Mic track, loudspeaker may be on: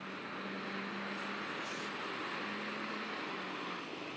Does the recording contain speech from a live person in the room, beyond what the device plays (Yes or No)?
No